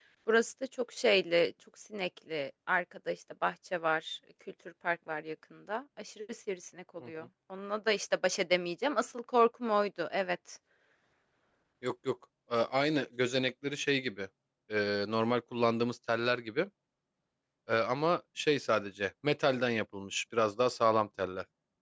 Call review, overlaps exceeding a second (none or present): none